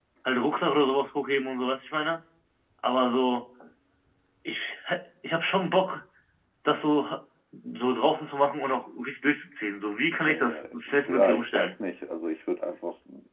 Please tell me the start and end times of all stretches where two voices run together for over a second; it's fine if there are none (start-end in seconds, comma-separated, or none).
10.2-11.7